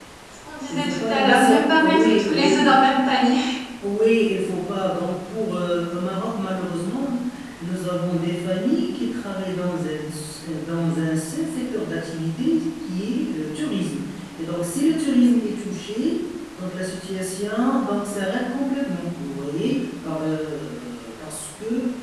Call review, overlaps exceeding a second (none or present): present